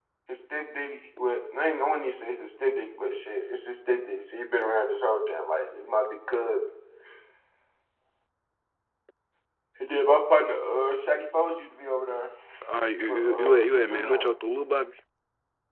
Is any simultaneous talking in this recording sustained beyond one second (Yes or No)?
Yes